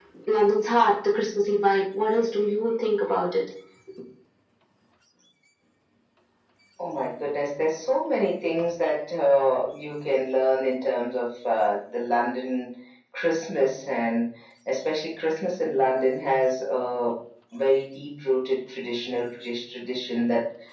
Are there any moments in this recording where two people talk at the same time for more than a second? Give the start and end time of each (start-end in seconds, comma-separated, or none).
none